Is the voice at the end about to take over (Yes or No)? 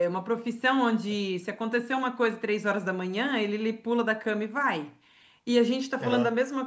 No